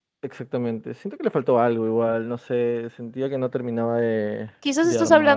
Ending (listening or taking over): taking over